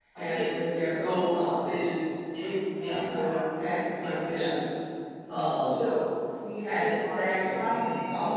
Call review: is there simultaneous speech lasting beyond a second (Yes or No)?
Yes